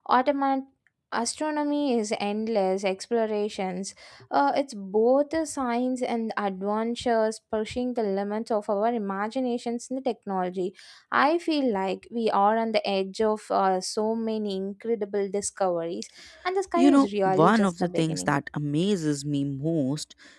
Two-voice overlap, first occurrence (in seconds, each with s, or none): 16.8 s